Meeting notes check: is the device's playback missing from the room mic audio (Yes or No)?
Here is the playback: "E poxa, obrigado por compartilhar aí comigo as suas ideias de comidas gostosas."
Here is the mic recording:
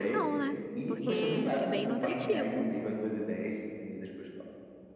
No